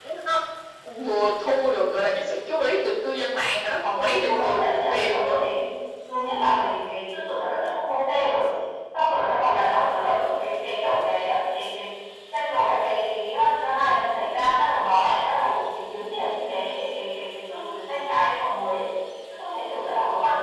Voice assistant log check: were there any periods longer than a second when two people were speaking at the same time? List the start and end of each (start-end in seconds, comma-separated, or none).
4.0-5.5